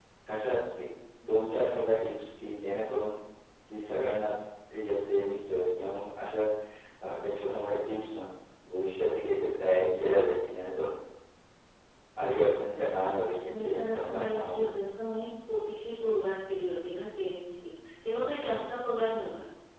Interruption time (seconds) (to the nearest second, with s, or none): 13 s